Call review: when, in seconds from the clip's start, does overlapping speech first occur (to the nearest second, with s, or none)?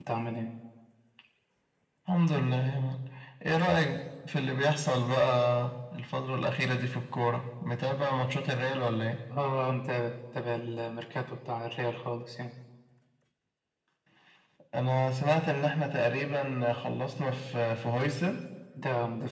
none